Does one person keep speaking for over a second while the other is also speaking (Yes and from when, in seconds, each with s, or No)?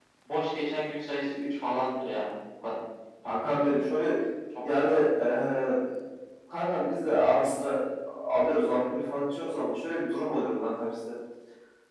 No